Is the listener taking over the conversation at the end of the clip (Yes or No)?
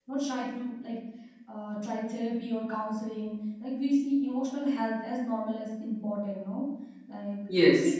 No